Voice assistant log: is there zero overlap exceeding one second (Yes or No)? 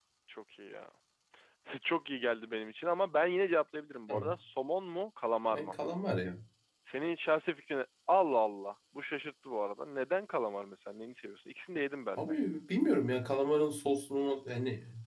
Yes